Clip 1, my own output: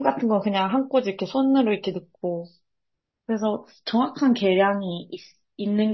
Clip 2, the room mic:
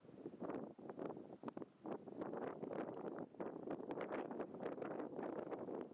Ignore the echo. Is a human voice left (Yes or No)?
No